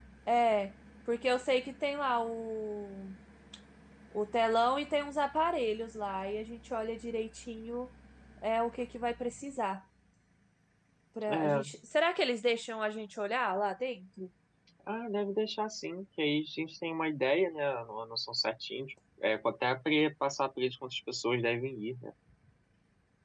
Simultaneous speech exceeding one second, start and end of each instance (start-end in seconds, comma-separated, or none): none